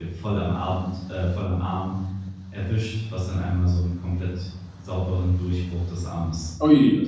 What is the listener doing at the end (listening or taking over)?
taking over